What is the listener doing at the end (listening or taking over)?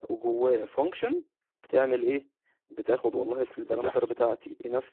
listening